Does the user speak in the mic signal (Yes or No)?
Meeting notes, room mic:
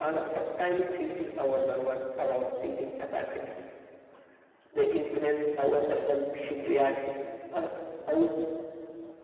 No